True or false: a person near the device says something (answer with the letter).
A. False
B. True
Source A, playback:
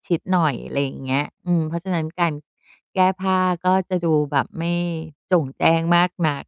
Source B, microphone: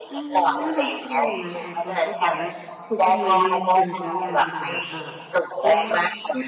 B